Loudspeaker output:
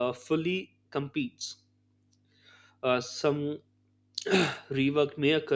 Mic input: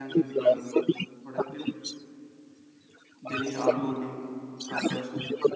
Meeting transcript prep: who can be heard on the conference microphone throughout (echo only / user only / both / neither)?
both